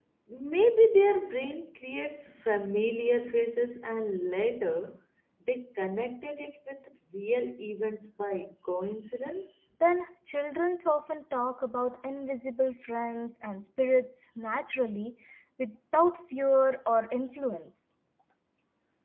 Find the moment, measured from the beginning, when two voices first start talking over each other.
none

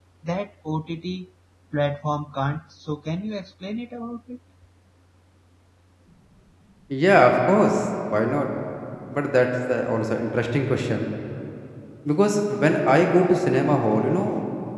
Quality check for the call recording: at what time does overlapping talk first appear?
none

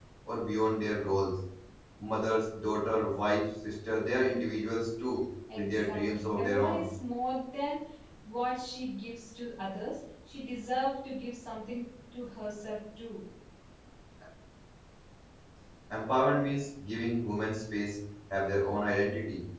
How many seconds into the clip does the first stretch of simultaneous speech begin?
5.5 s

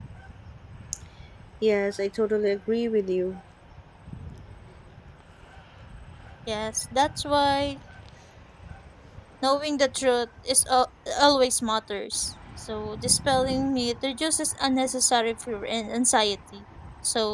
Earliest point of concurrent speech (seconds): none

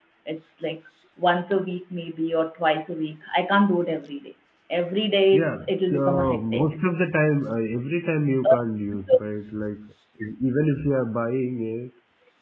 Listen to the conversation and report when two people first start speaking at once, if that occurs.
5.3 s

